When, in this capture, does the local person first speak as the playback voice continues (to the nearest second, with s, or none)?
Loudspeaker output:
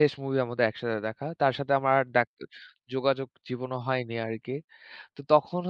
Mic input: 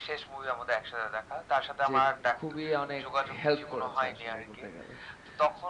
2 s